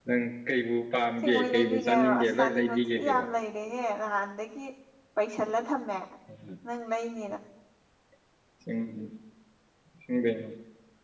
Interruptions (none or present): present